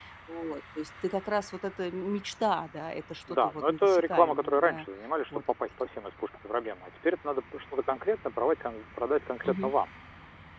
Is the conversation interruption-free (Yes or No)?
No